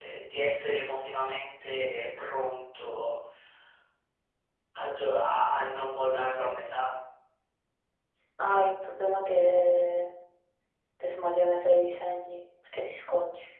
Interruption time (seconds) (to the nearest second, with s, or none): none